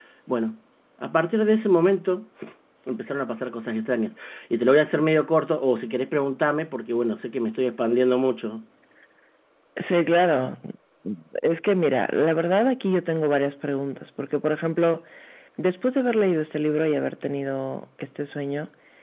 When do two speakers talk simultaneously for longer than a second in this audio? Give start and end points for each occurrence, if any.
none

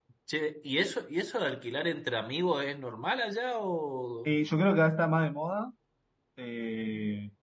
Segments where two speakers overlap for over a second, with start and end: none

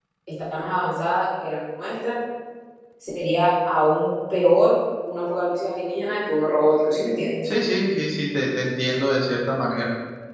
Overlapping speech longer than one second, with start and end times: none

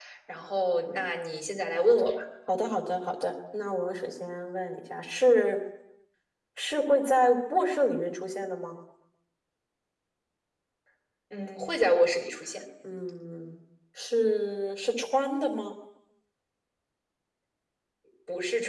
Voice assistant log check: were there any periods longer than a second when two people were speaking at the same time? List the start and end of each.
none

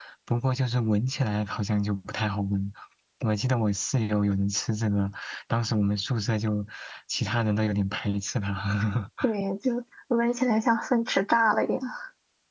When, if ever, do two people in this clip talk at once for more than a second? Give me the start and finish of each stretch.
none

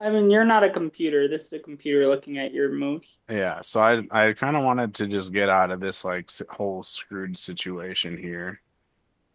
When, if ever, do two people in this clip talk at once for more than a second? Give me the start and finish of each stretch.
none

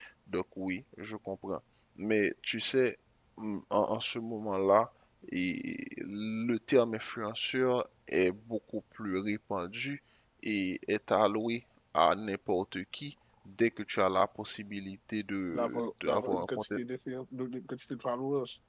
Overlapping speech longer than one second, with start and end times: 15.5-16.7

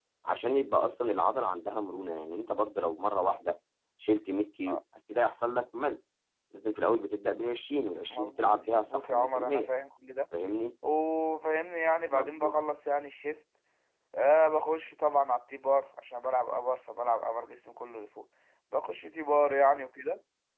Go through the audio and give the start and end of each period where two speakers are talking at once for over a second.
8.1-9.7

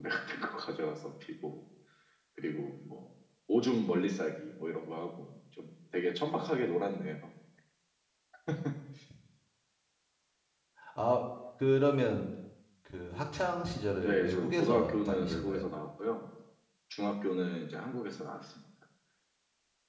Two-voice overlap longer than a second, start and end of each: 14.0-15.6

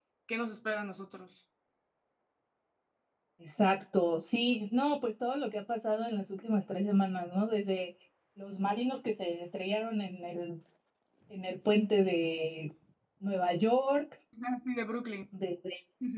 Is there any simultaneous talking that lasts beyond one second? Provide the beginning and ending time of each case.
none

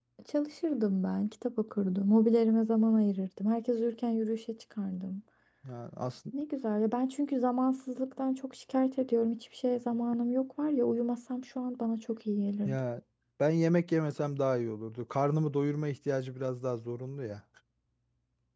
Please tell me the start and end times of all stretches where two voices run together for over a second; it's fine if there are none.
none

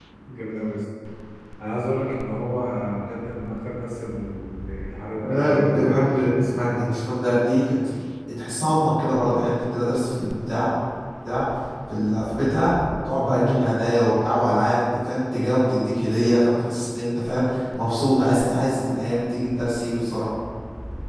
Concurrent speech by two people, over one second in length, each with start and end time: 5.3-6.6

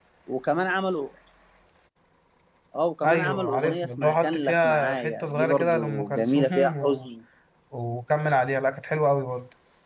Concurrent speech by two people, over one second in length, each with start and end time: 3.0-7.1

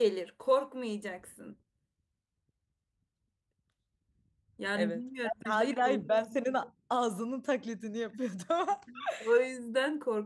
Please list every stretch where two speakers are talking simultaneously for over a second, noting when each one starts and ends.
4.8-6.2

